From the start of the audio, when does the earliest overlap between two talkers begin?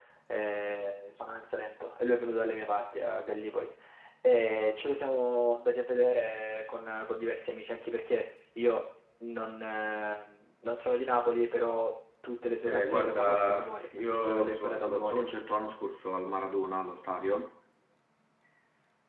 13 s

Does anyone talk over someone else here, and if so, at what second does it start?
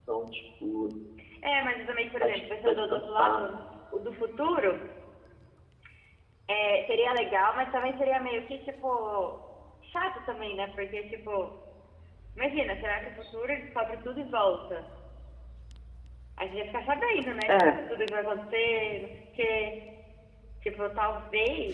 2 s

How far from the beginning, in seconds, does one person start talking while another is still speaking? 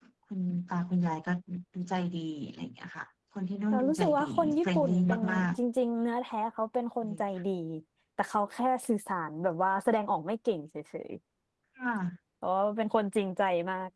4 s

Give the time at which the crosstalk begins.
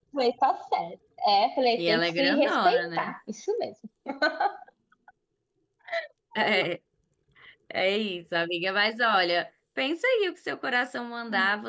2 s

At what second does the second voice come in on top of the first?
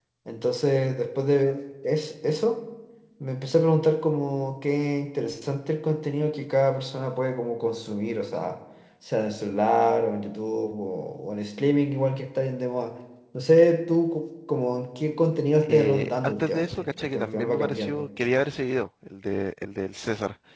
16 s

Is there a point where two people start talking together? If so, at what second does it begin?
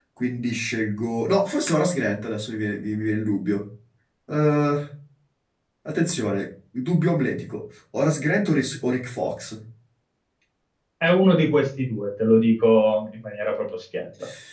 none

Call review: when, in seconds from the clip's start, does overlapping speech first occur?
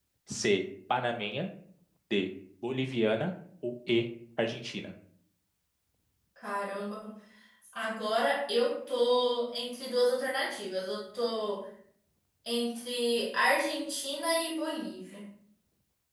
none

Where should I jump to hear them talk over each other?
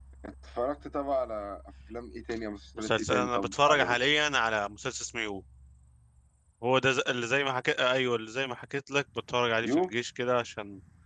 3 s

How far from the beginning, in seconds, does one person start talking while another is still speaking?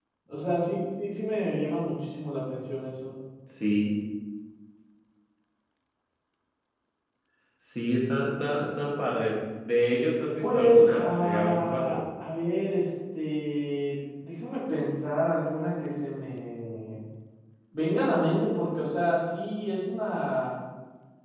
10 s

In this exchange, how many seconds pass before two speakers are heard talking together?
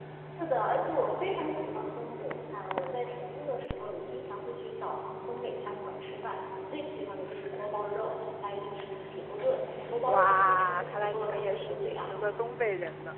10 s

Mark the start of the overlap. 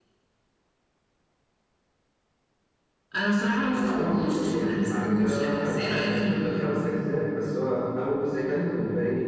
4 s

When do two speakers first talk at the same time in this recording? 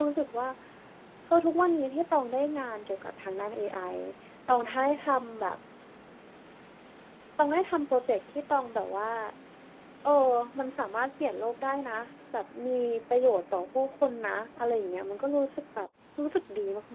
none

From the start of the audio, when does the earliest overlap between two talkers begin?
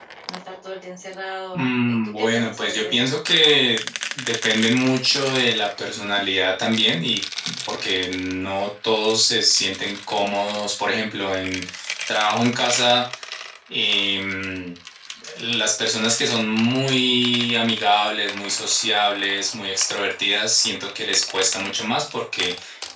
2 s

